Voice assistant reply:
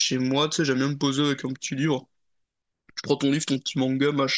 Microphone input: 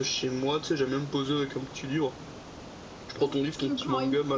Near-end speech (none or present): present